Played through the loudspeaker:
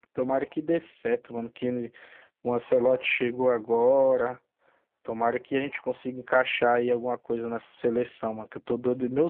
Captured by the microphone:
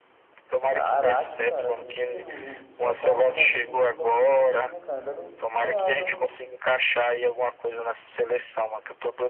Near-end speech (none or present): present